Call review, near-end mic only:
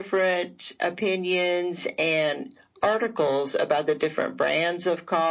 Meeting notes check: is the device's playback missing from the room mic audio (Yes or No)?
No